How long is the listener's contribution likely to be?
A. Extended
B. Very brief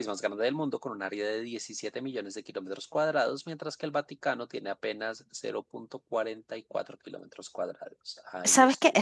A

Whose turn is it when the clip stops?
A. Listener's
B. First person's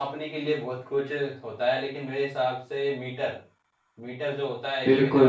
A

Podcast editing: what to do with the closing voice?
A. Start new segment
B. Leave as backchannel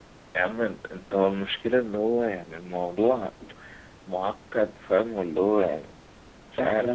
A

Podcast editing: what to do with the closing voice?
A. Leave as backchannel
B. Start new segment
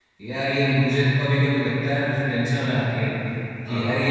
A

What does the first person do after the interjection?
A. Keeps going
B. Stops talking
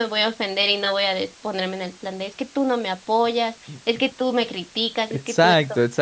B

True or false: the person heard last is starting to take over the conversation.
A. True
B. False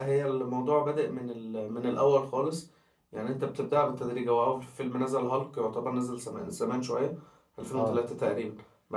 B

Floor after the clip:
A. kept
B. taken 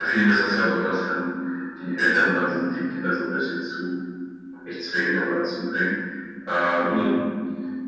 A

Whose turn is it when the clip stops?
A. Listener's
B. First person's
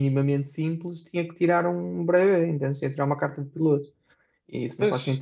B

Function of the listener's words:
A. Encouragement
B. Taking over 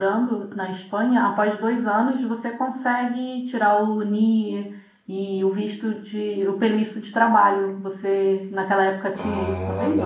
B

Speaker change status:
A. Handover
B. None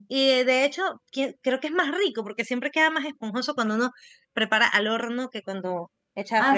A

